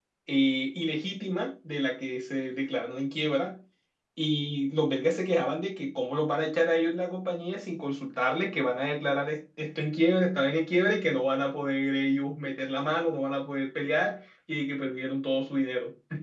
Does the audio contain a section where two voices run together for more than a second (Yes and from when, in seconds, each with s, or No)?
No